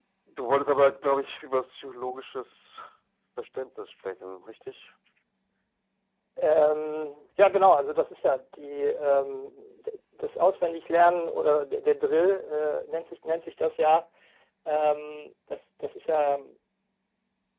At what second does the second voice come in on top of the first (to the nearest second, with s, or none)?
none